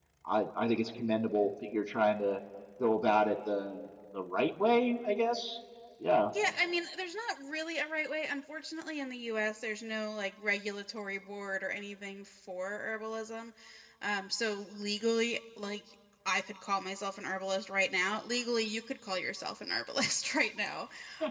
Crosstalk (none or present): none